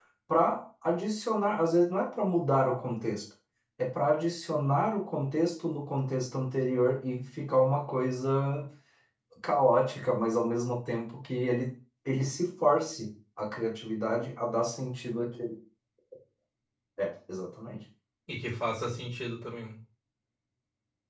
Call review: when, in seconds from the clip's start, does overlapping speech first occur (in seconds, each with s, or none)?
none